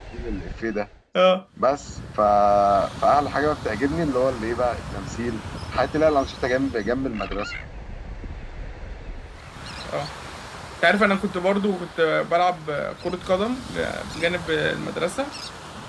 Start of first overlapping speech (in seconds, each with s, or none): none